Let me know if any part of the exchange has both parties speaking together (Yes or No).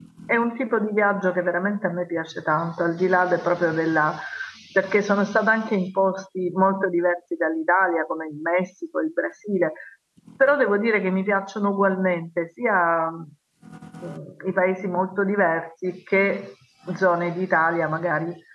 No